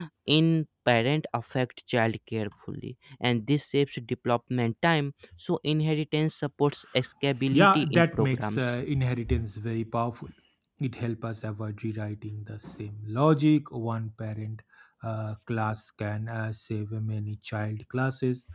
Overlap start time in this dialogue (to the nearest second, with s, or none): 8 s